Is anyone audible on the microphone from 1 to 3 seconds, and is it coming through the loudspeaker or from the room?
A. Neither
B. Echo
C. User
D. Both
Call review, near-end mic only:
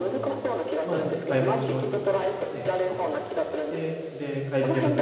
D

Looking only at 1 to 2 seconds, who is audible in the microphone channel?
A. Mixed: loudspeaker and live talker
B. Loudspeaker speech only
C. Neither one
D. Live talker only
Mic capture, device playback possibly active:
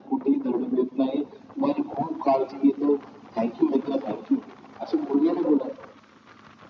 B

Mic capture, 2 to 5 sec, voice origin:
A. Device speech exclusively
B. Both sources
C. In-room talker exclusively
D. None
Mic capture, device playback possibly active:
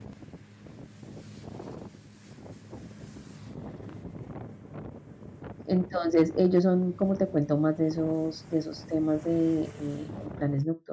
D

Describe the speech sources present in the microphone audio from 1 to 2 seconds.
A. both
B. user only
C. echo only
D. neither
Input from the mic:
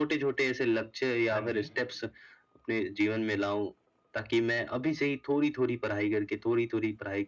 A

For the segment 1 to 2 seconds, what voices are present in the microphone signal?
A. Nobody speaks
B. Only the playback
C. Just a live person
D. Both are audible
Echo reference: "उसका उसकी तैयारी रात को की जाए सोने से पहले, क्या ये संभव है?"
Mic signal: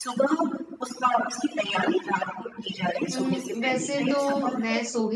B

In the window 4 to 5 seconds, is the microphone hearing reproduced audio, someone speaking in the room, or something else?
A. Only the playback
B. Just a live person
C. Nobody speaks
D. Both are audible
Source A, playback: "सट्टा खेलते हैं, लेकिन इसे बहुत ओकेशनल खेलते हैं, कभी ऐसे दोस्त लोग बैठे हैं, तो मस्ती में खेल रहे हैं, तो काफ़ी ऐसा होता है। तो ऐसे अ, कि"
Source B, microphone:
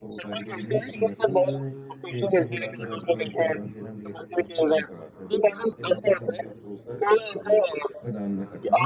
D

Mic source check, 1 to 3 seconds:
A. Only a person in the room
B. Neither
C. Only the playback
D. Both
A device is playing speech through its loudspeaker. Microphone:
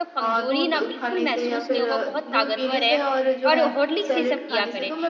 D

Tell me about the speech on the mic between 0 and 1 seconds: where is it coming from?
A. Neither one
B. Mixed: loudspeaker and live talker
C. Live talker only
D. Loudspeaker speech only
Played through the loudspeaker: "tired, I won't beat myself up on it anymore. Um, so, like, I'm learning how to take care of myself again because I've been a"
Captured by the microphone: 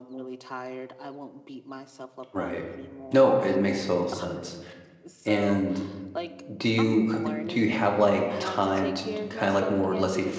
D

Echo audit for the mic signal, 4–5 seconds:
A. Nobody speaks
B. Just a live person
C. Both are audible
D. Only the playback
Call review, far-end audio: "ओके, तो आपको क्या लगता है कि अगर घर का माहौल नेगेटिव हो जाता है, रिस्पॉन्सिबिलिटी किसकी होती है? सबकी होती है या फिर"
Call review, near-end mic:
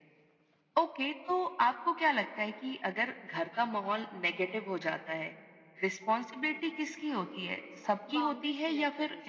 D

